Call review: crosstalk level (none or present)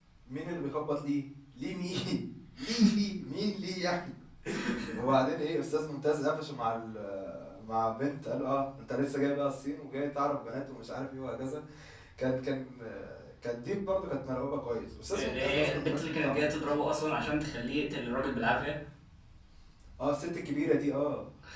present